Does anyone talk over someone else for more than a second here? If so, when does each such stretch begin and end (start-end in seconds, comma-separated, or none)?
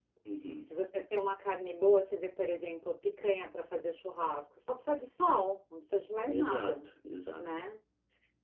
none